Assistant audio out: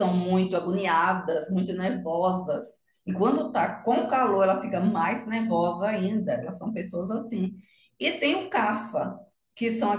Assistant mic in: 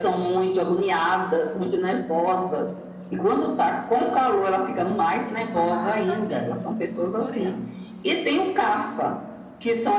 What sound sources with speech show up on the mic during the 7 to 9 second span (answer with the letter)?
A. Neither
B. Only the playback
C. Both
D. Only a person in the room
C